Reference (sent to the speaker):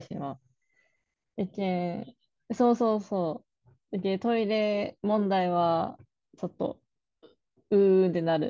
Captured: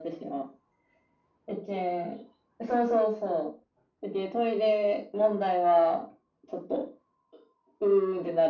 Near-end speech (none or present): none